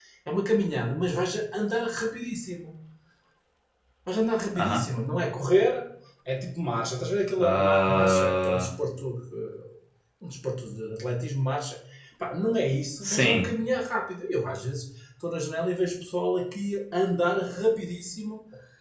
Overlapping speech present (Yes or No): Yes